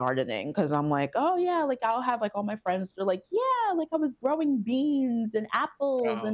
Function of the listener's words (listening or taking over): listening